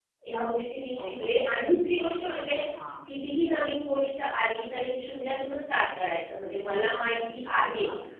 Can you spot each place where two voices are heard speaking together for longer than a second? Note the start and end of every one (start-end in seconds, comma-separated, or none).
none